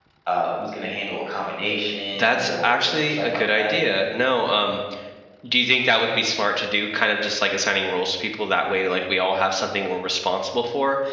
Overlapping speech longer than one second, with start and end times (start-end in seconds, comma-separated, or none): 2.2-3.7